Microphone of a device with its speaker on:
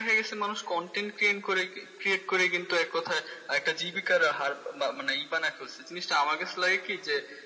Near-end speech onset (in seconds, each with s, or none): none